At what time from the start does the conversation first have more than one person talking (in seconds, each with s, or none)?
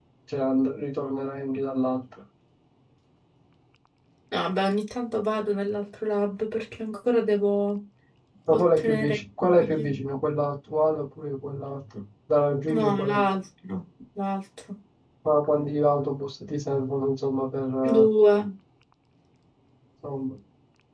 8.5 s